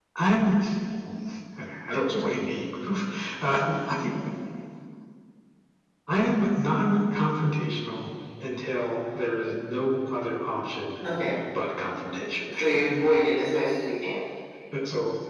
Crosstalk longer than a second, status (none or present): none